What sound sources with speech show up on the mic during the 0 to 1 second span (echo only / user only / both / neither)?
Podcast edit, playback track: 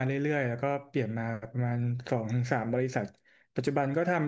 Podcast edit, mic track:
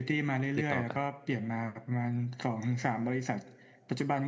both